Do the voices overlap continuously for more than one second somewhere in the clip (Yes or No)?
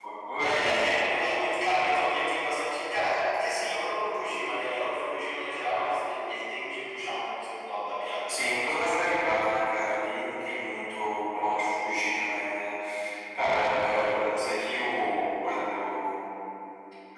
No